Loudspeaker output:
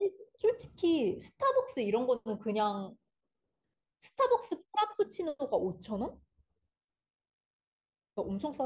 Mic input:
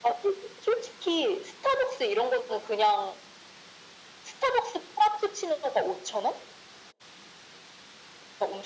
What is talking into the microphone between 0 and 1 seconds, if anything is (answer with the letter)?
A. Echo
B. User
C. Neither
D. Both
A